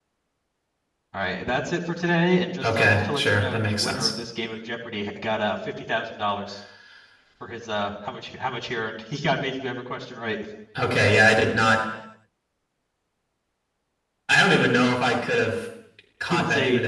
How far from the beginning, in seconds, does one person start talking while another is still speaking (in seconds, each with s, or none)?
2.6 s